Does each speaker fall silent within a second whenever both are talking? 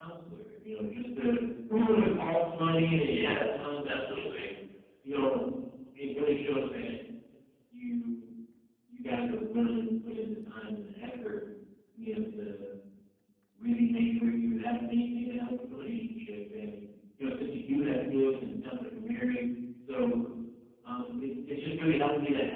No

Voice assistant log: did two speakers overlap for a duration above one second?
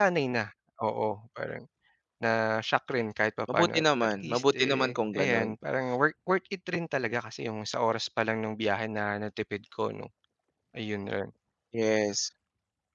Yes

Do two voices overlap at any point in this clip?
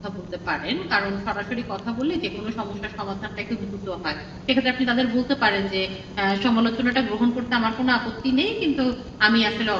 No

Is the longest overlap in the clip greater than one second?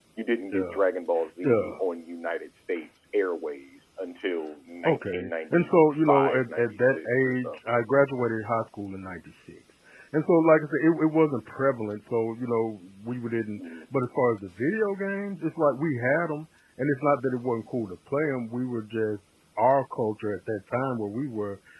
Yes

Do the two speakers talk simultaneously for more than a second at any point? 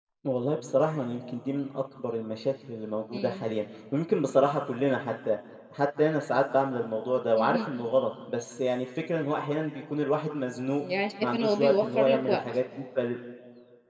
Yes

